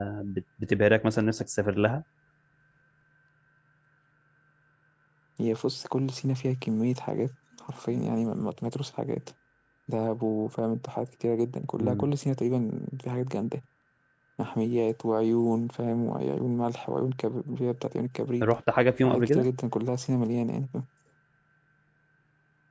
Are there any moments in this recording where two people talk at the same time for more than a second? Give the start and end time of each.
none

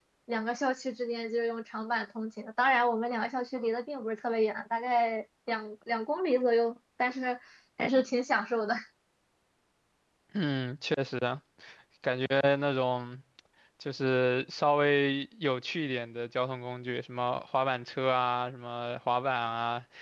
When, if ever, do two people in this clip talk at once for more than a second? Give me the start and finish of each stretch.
none

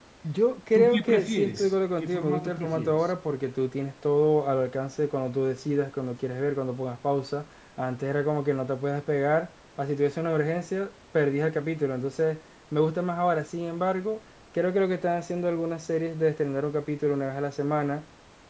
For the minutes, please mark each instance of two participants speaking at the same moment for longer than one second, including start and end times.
0.7-3.0

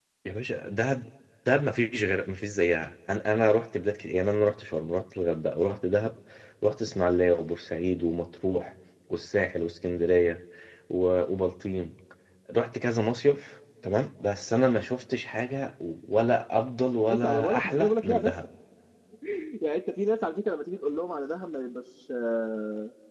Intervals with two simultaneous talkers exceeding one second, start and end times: 17.1-18.3

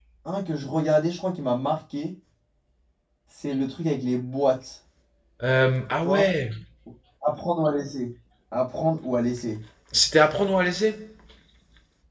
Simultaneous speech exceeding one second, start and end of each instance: none

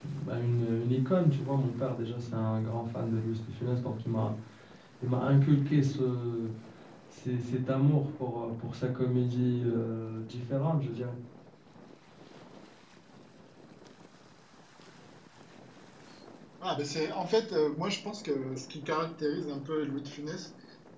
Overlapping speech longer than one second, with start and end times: none

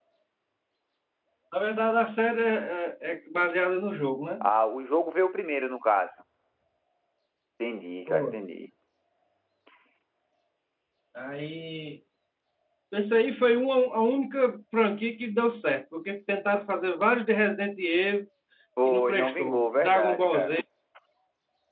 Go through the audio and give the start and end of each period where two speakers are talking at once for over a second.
18.9-20.6

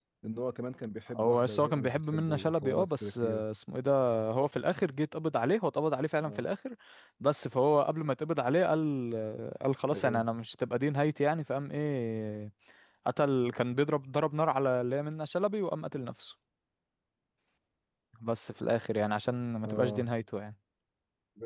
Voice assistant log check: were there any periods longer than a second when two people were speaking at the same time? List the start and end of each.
1.1-3.4

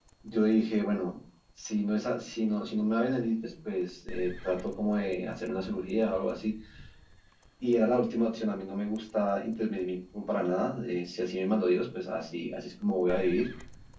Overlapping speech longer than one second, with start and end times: none

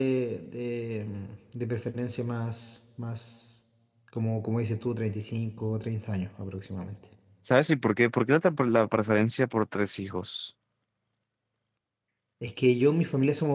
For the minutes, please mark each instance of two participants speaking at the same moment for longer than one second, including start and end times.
none

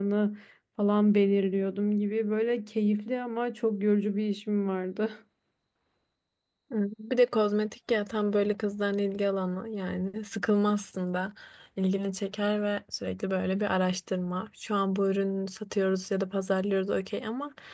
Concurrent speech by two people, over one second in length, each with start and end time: none

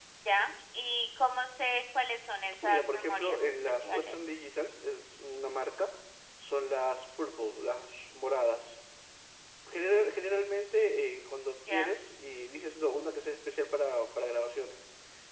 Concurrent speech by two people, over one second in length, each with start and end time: 2.6-4.2

